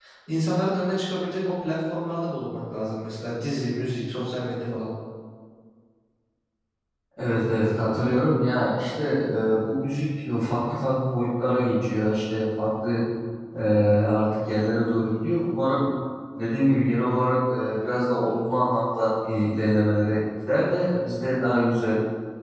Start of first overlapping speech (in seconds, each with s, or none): none